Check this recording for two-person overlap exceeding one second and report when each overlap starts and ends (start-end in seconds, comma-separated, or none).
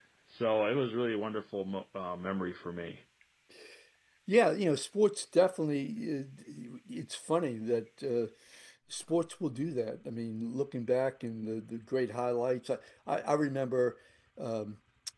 none